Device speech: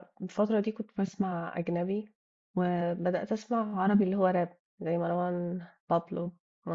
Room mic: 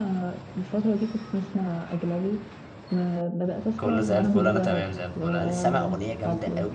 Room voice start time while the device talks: 3.8 s

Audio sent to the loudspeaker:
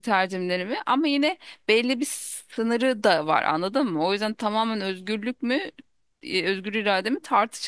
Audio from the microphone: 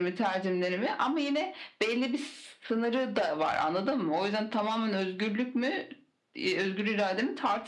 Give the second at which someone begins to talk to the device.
none

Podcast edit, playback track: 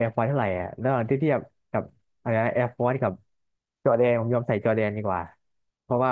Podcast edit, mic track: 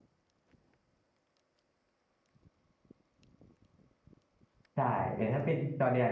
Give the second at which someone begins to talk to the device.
4.7 s

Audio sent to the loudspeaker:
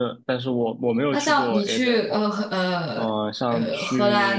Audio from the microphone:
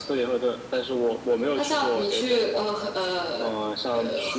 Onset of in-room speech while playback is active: none

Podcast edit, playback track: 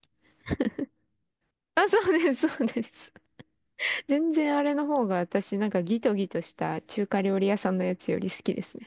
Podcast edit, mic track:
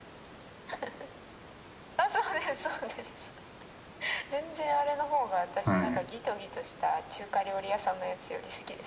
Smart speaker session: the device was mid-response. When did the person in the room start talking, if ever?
5.6 s

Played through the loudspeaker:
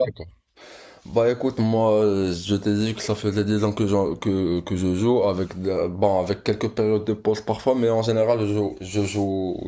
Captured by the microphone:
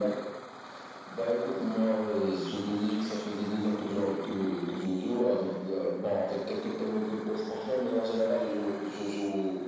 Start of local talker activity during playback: none

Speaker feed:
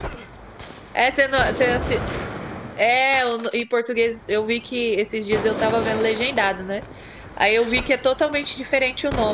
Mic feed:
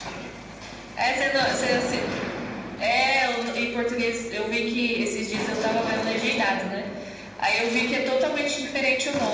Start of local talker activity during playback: none

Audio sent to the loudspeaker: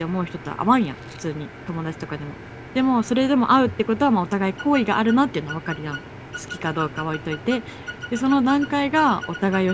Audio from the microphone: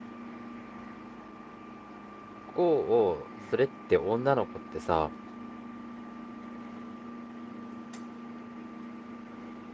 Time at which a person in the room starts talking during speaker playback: 2.5 s

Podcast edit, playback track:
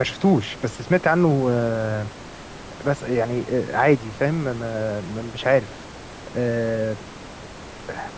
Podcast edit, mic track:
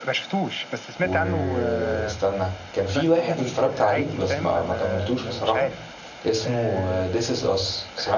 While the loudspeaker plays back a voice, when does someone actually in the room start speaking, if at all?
1.0 s

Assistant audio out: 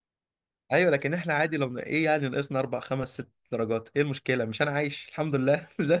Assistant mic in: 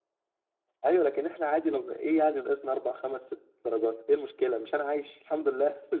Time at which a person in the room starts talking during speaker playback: none

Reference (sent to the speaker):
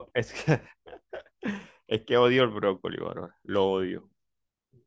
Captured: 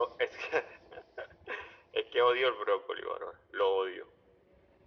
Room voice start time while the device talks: none

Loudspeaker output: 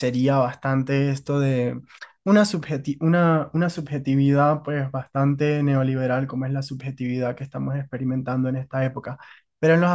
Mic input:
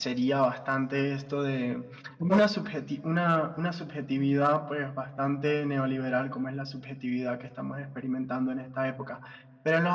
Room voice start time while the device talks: 2.2 s

